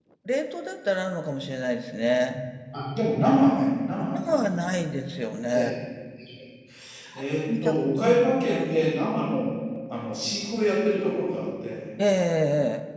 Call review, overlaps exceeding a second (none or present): present